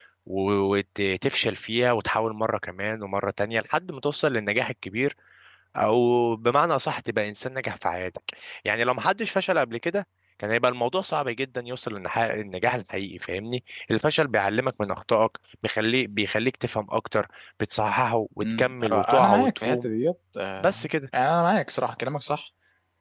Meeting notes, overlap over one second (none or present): present